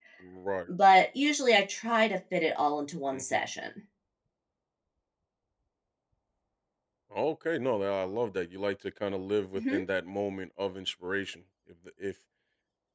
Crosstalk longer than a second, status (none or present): none